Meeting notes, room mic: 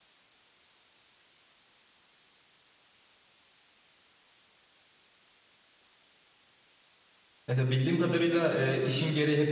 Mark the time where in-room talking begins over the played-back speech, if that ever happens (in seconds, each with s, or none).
7.5 s